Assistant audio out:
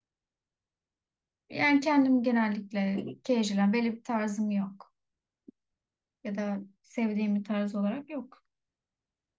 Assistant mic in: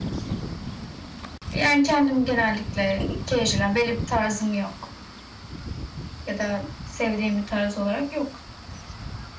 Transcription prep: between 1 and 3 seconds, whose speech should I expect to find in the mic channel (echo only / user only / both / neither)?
echo only